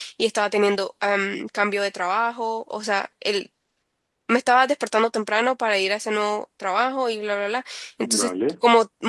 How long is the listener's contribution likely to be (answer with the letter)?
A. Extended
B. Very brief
B